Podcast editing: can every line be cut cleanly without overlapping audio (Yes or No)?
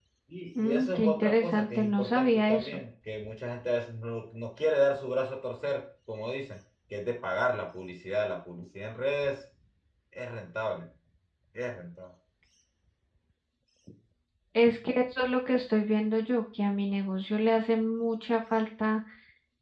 No